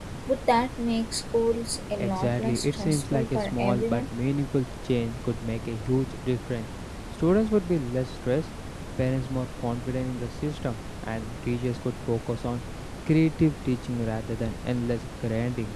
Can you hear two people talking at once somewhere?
Yes, from 2.0 s

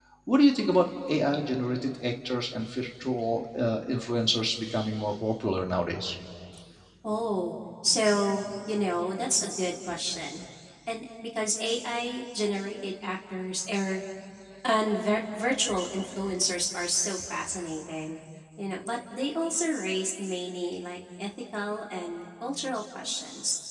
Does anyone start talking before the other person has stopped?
No

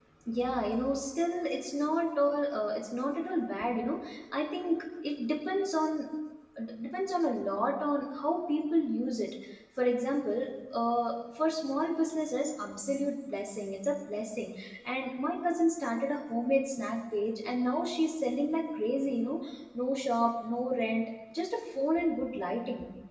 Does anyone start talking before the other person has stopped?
No

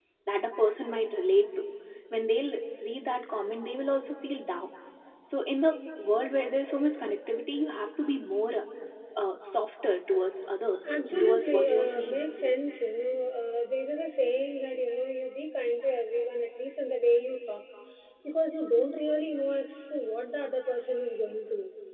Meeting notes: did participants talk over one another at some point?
Yes, from 10.8 s

